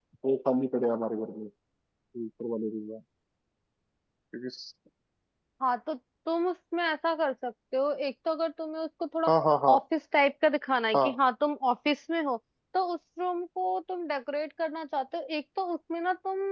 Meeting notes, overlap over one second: none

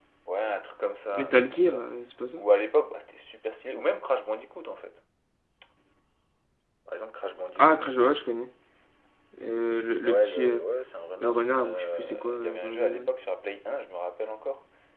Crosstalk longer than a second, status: present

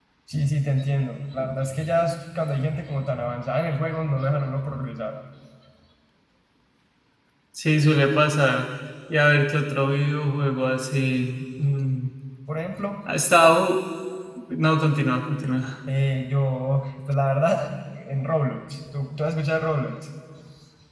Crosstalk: none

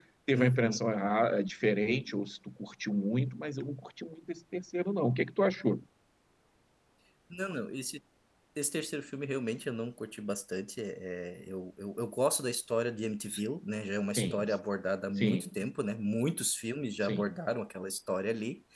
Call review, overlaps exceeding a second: none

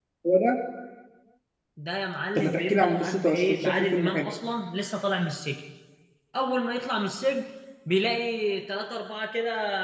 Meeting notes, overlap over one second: present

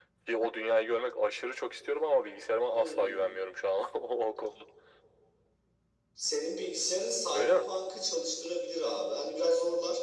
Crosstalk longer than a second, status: none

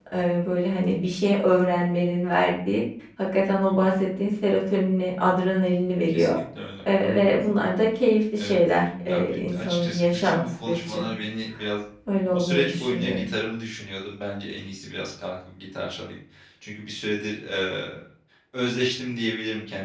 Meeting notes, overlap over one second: present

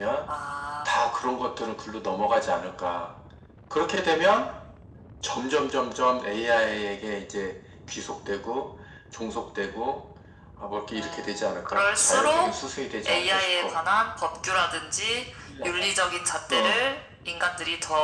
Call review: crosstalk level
present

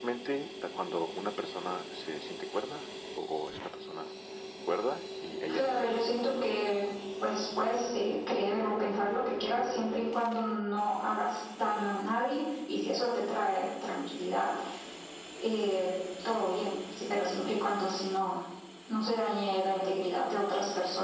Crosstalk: present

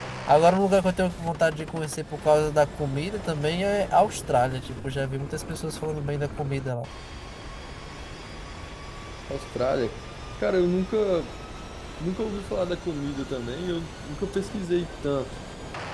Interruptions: none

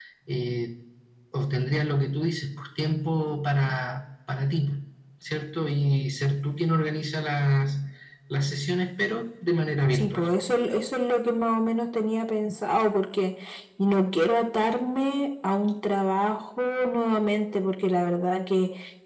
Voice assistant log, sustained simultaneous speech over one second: none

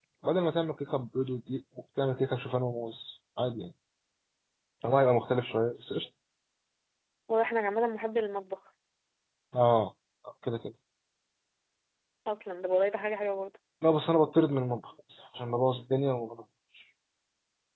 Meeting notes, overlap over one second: none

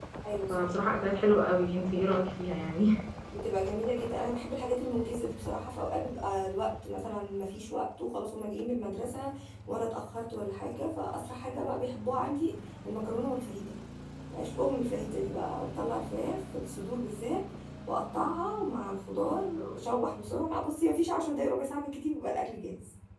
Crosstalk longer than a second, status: none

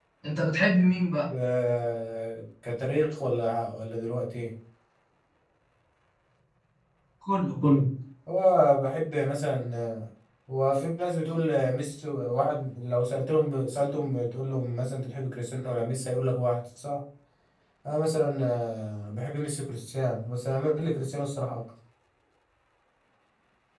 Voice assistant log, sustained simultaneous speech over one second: none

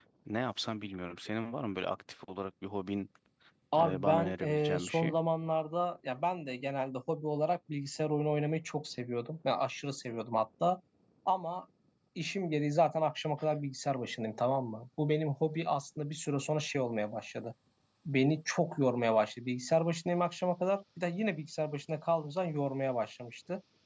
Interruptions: present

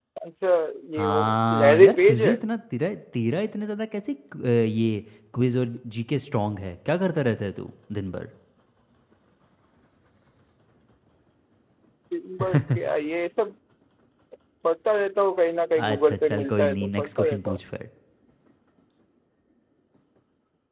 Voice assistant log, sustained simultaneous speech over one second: present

